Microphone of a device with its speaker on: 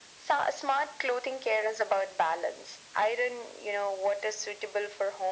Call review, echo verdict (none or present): present